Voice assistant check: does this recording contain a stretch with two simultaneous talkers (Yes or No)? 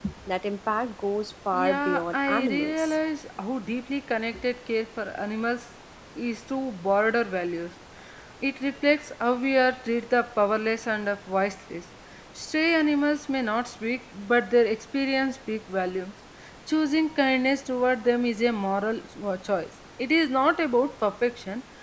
Yes